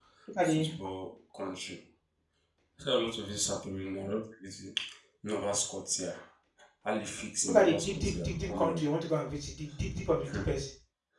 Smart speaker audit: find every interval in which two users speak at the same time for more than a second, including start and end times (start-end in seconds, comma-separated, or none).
7.5-8.8